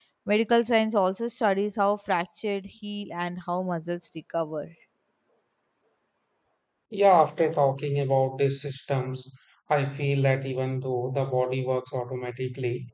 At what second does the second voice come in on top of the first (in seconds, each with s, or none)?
none